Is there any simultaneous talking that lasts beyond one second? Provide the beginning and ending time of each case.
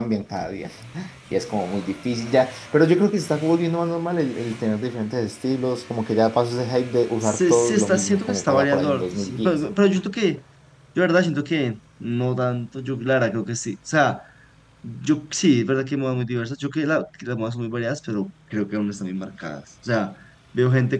7.2-9.5

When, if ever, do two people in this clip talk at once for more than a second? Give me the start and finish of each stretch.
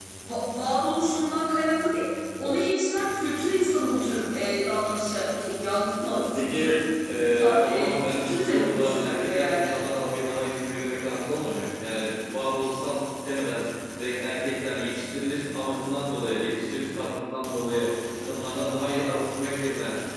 7.3-9.8

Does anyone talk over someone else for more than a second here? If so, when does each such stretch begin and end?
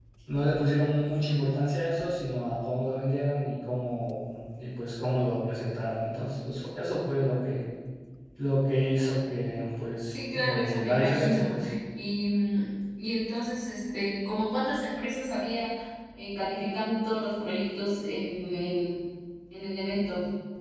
10.1-11.5

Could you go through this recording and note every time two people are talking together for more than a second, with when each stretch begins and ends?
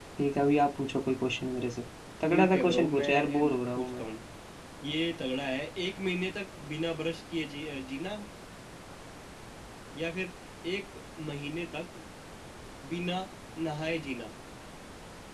2.3-4.0

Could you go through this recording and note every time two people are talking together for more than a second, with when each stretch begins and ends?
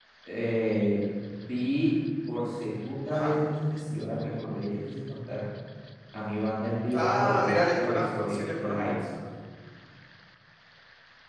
6.9-9.0

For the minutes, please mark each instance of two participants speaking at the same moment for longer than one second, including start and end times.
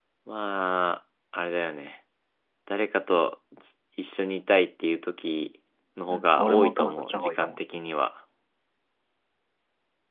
6.1-7.6

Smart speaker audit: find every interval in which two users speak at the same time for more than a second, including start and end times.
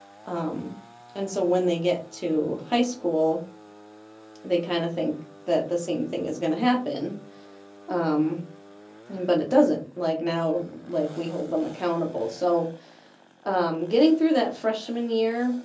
none

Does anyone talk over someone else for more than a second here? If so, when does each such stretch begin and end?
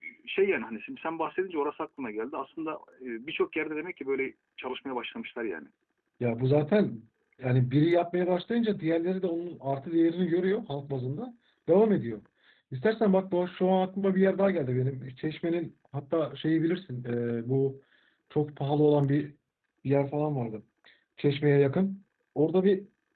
none

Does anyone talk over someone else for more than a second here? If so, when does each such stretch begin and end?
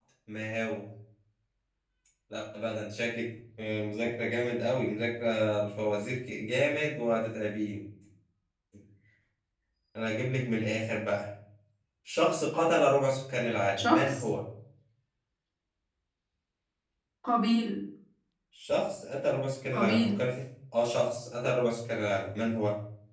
none

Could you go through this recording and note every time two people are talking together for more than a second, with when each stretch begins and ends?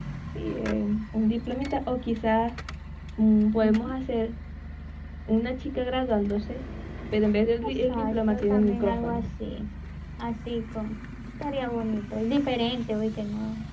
7.7-9.2

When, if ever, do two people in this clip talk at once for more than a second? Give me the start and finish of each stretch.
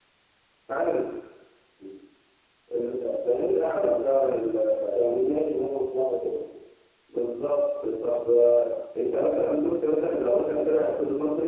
none

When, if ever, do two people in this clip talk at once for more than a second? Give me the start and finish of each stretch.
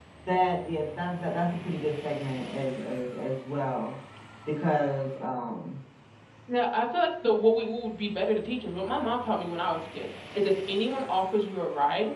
none

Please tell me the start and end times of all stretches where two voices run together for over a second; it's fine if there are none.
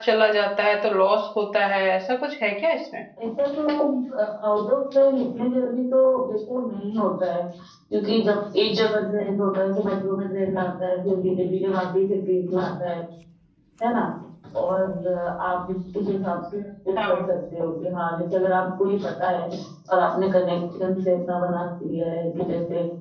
none

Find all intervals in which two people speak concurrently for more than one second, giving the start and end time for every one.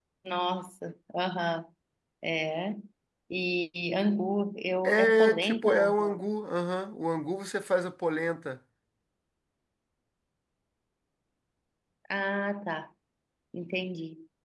4.8-6.2

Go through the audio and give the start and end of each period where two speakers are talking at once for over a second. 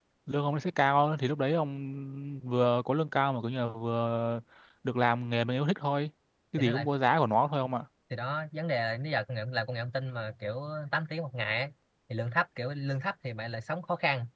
none

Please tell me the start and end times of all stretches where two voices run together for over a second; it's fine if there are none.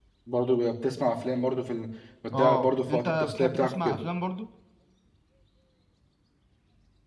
2.3-3.8

